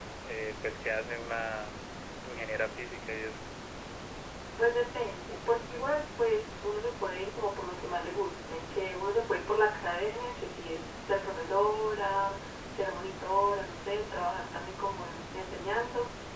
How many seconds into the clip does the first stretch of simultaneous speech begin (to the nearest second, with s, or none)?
none